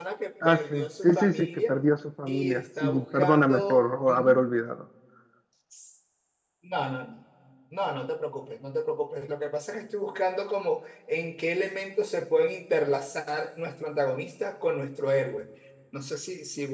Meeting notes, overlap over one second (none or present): present